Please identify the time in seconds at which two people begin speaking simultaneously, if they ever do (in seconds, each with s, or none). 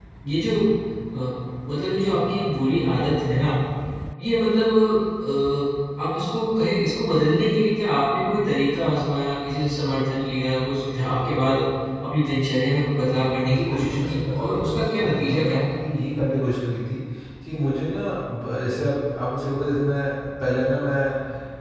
13.5 s